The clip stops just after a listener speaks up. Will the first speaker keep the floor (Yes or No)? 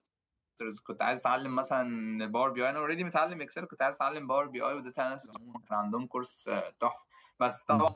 Yes